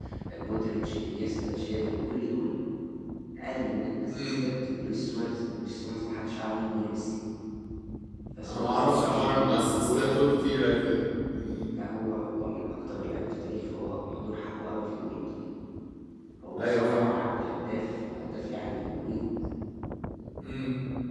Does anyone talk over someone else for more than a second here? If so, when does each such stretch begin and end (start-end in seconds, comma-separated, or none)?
8.4-10.1